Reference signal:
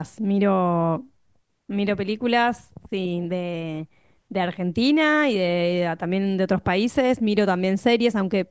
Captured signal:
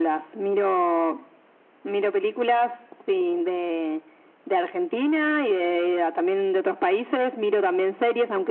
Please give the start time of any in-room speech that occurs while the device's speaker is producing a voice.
none

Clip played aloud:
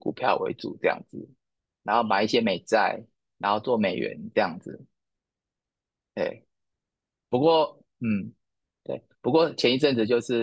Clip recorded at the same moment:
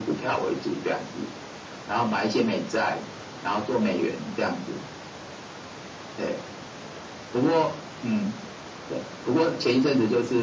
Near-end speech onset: none

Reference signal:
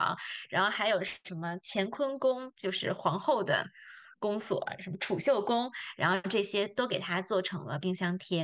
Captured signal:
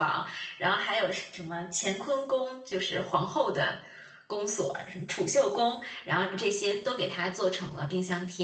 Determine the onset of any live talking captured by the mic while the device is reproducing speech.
none

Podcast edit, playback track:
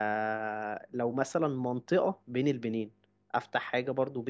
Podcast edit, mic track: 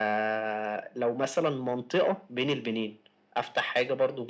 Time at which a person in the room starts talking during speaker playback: none

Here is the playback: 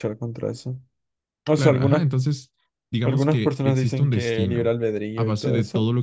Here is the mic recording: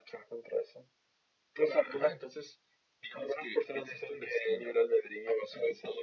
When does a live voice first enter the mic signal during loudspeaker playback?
none

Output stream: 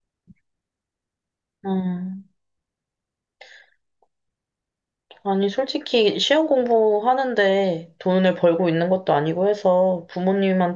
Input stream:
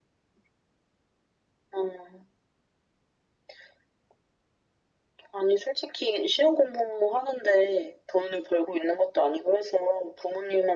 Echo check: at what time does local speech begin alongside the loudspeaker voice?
none

